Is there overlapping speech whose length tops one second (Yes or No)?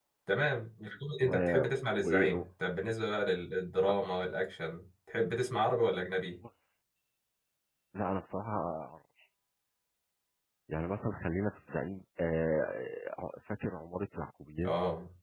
No